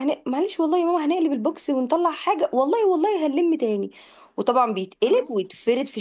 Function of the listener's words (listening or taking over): listening